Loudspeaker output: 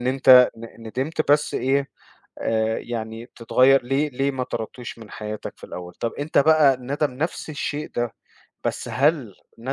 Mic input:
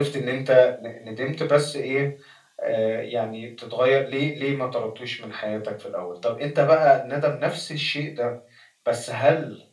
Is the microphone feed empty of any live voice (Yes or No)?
Yes